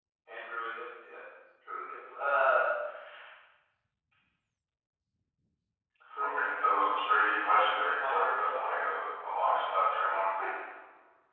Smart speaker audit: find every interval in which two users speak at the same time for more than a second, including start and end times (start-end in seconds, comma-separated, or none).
7.3-8.8